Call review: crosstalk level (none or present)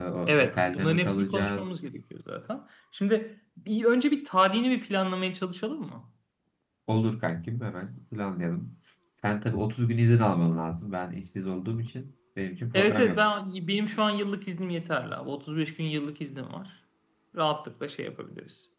present